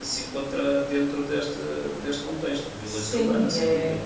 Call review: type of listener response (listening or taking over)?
taking over